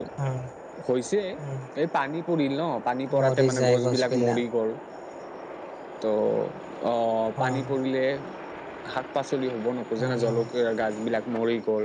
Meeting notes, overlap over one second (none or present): present